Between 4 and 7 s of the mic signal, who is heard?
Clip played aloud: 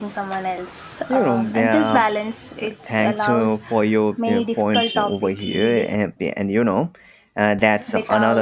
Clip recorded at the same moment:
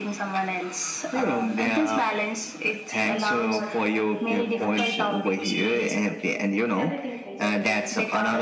both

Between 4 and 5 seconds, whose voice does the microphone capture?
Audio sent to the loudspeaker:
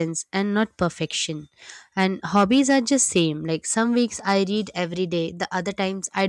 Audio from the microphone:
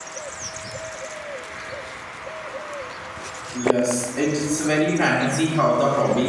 user only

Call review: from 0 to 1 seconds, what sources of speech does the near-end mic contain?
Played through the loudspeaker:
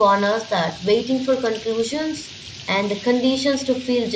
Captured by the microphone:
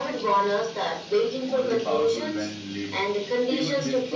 echo only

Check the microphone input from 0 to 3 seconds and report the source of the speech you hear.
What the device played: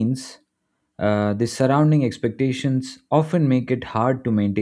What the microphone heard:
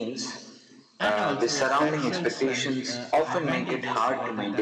both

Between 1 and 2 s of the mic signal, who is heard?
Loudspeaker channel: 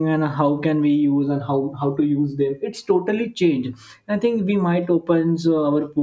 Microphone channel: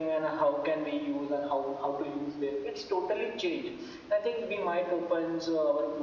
echo only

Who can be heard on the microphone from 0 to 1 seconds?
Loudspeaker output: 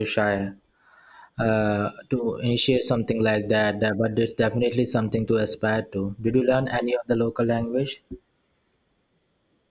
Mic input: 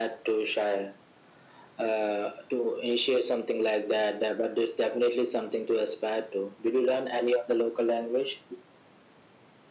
echo only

